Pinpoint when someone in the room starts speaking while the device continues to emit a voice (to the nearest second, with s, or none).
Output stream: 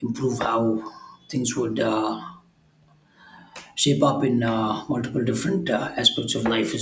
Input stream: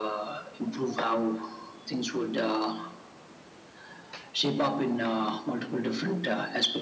none